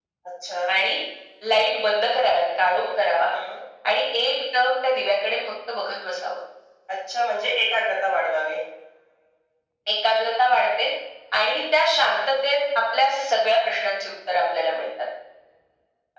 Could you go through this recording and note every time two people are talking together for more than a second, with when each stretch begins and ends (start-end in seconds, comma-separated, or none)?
none